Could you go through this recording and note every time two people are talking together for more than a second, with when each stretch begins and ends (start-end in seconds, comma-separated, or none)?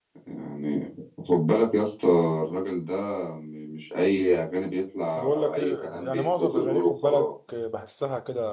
5.2-7.3